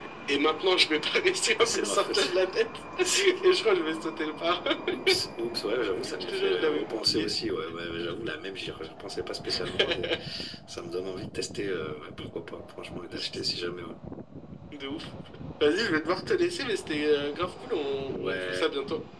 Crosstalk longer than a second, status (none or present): present